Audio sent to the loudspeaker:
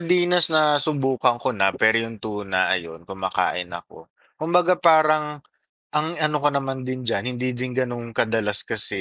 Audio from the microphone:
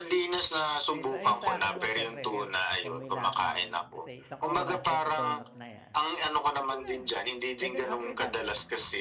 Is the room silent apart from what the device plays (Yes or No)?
No